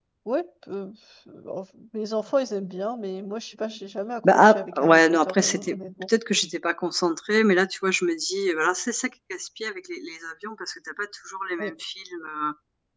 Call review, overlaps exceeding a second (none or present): present